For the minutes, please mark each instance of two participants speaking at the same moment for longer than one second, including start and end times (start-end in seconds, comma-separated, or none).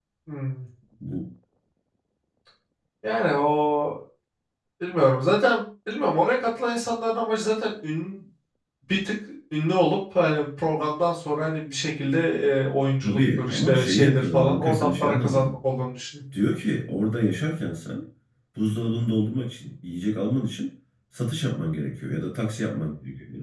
13.0-15.6